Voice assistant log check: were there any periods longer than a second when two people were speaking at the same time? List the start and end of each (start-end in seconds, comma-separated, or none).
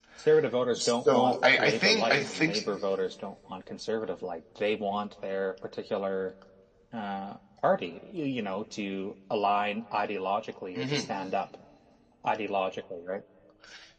1.1-2.5